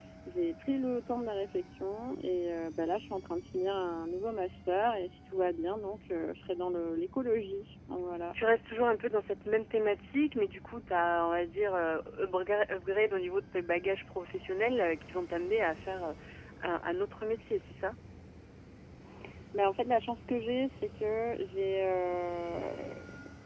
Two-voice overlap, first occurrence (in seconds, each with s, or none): none